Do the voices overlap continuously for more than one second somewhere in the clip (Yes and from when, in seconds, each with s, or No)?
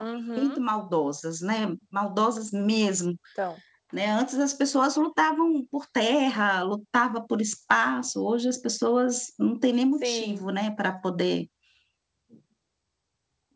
No